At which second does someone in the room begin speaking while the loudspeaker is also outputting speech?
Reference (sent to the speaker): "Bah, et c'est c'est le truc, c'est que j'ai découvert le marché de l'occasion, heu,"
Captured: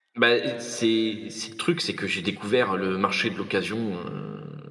none

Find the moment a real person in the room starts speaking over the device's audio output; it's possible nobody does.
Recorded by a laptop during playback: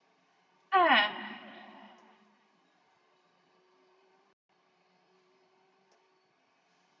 1 s

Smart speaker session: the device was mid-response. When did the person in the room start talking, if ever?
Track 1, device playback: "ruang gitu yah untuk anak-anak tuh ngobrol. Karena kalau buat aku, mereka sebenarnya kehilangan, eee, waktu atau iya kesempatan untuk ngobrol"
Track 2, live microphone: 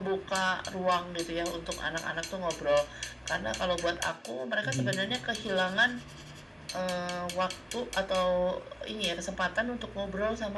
5 s

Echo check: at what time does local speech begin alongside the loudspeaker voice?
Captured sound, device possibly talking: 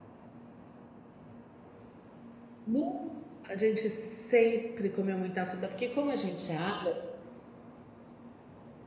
3 s

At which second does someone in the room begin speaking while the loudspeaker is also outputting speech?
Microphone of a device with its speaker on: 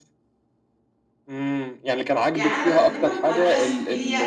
2 s

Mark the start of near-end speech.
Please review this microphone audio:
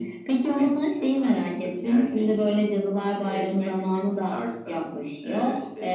none

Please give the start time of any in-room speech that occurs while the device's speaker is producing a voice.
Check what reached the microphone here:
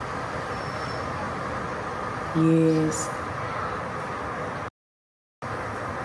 2 s

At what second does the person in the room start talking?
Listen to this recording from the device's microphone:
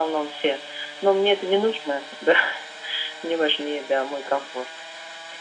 none

